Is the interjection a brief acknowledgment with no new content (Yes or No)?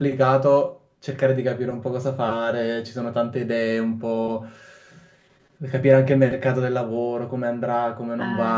Yes